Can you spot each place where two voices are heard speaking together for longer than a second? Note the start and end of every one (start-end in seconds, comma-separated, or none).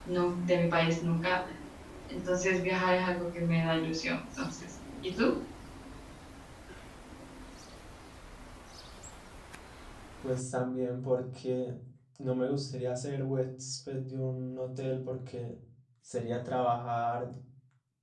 none